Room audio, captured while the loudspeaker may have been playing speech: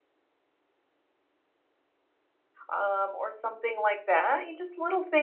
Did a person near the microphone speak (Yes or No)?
Yes